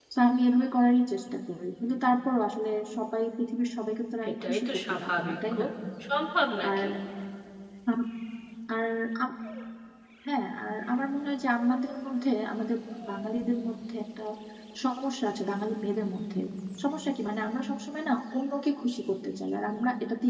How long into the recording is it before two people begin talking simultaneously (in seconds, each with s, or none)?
4.2 s